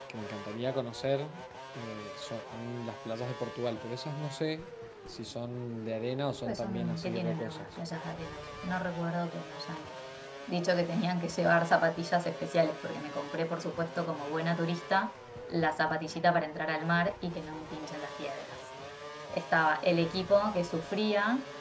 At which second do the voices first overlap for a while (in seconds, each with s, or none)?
6.4 s